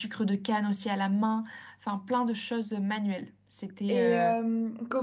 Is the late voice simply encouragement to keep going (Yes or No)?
No